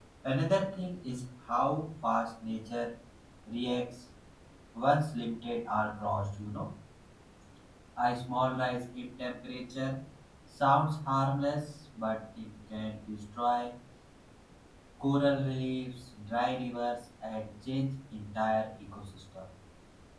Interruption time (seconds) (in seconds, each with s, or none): none